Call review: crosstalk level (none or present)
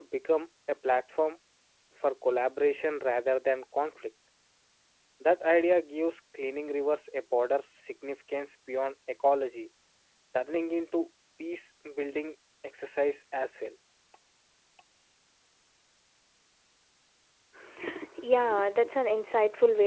none